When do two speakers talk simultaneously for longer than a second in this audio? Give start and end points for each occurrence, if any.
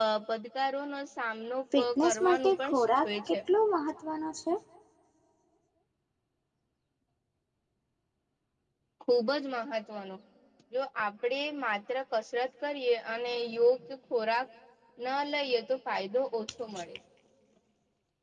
2.0-3.4

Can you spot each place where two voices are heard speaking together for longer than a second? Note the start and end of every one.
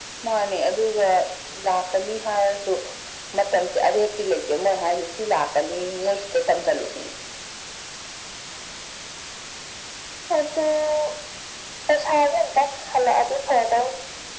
none

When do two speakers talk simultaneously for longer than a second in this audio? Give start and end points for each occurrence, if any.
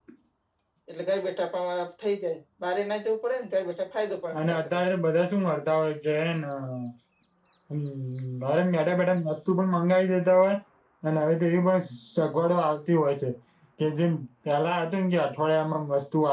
none

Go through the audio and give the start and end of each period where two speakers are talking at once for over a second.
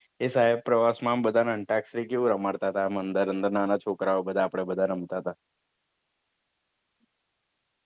none

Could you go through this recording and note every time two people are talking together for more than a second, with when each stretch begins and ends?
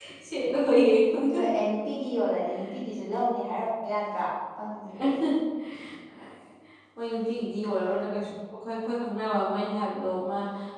none

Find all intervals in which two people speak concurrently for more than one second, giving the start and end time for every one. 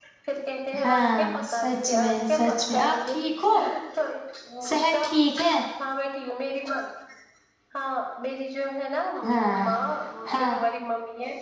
0.8-3.1

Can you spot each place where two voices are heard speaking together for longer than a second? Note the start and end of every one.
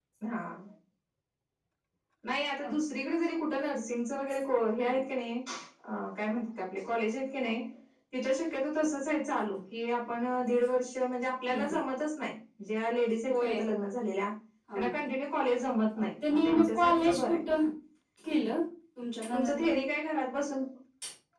16.0-17.4

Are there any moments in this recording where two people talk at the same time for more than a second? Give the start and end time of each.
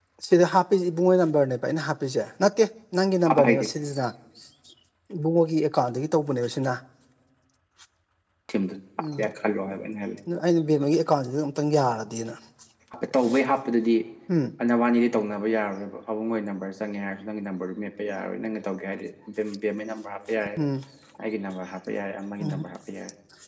none

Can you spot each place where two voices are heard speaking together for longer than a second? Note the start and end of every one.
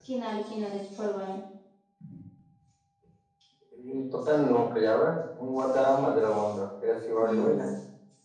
none

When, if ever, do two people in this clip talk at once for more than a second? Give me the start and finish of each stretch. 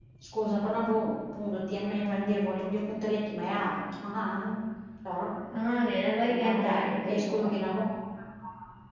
6.3-7.5

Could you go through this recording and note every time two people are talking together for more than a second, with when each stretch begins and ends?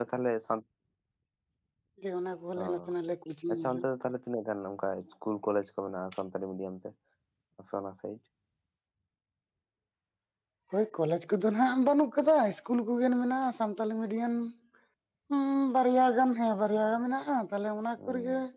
none

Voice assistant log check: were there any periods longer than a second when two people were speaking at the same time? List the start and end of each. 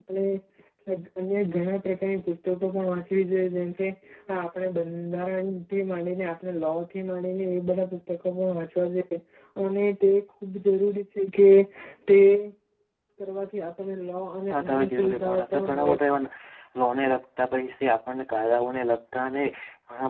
14.5-16.1

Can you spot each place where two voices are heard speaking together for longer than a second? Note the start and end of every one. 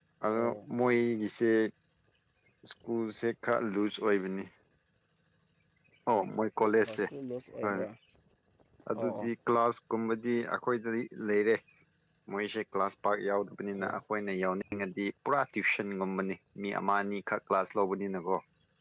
none

